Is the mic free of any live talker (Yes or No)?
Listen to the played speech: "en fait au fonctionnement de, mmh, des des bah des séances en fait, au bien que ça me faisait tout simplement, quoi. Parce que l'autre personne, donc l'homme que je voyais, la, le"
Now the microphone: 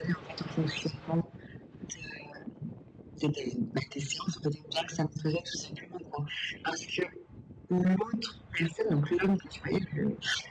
Yes